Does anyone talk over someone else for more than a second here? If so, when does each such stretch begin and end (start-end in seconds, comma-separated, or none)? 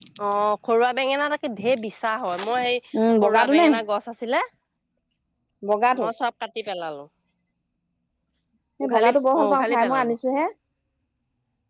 8.8-10.1